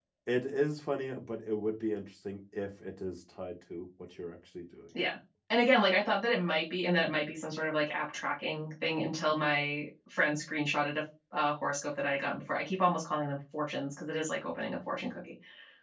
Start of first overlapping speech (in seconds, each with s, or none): none